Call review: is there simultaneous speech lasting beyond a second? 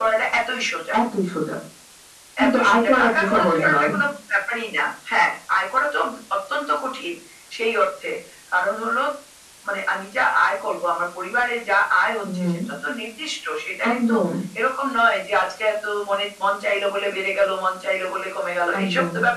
Yes, from 2.5 s

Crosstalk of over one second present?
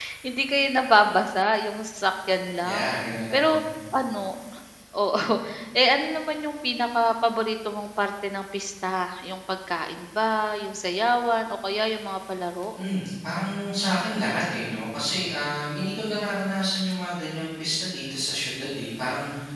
No

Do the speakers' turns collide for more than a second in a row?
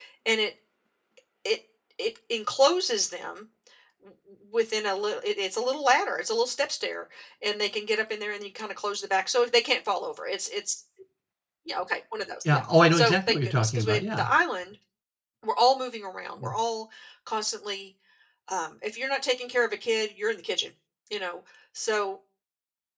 Yes, from 12.5 s

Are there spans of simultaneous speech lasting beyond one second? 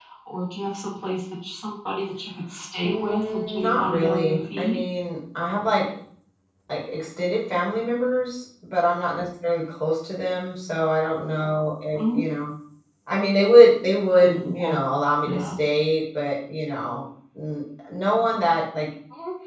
Yes, from 2.8 s

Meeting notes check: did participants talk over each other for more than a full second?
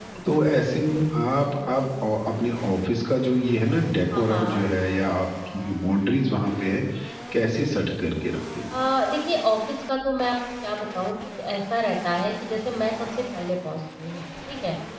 No

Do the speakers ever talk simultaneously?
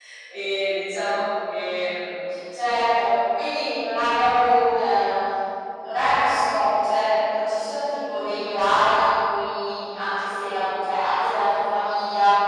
No

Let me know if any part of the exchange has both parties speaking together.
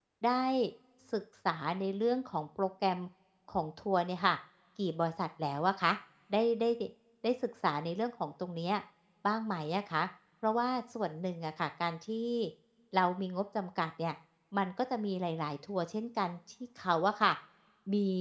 No

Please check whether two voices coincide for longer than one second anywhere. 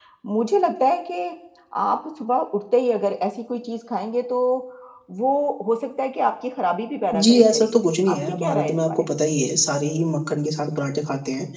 Yes, from 7.1 s

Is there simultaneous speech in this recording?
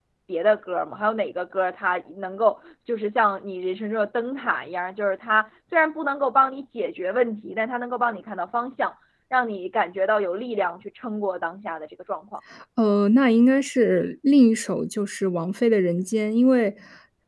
No

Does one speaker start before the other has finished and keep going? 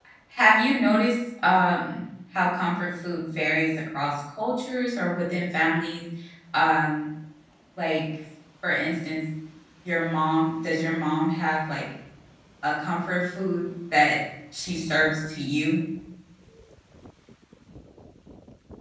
No

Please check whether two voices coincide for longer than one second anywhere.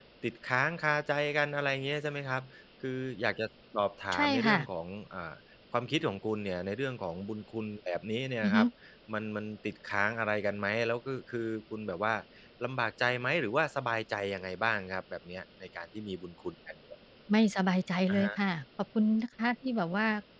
No

